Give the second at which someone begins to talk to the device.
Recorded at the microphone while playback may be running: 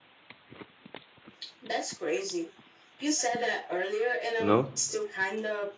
4.4 s

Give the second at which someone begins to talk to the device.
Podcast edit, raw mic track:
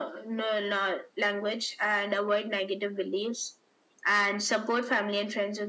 none

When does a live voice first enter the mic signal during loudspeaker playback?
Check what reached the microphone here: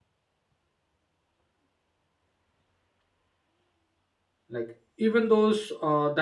4.5 s

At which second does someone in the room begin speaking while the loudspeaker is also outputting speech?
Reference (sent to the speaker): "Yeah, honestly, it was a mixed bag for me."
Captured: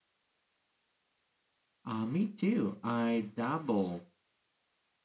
1.8 s

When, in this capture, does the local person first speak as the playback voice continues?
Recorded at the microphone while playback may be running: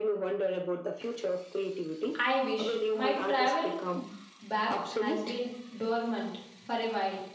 2.1 s

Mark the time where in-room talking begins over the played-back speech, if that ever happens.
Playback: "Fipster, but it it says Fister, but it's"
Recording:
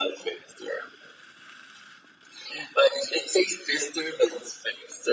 none

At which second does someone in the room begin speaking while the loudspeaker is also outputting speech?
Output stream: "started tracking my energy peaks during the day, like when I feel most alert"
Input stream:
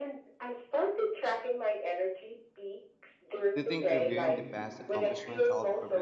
3.5 s

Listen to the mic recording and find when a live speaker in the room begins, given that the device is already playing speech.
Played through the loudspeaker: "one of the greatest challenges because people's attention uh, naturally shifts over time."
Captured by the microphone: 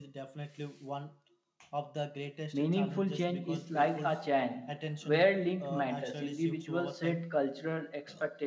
2.5 s

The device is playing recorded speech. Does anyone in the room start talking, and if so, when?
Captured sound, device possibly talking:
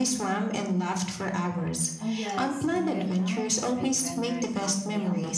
2.0 s

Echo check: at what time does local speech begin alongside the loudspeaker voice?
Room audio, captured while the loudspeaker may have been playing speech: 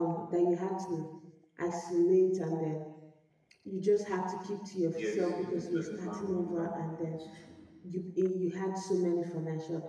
4.9 s

